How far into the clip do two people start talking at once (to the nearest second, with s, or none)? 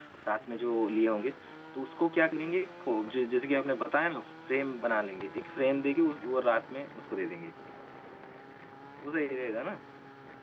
none